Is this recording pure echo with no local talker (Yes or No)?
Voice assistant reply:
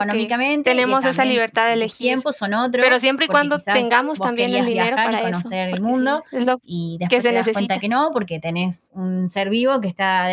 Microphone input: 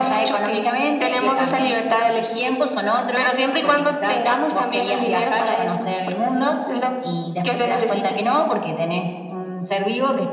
Yes